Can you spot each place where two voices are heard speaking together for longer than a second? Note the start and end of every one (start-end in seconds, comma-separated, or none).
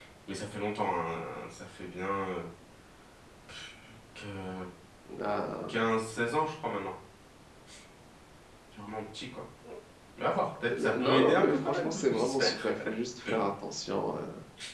10.8-12.7